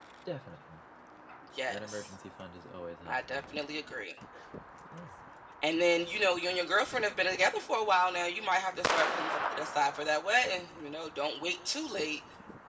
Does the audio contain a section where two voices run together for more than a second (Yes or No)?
No